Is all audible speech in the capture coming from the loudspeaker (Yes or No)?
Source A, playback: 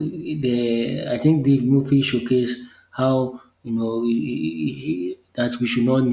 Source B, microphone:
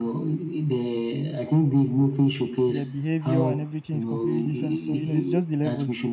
No